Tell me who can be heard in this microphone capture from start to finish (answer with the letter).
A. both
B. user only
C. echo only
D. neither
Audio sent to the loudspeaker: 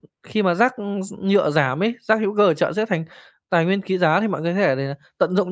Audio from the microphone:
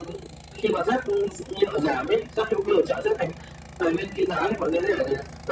C